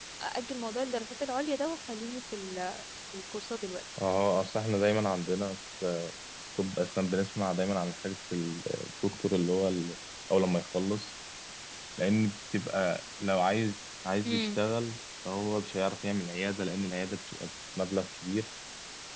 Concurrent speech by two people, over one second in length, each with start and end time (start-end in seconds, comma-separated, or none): none